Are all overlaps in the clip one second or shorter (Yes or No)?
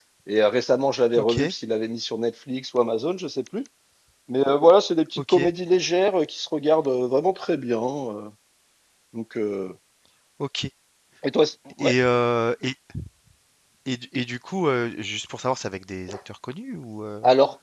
Yes